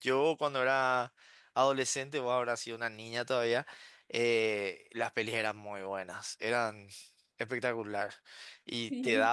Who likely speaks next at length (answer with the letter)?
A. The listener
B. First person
B